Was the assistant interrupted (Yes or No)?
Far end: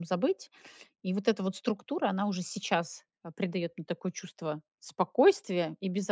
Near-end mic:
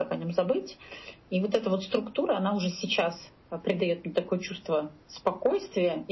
No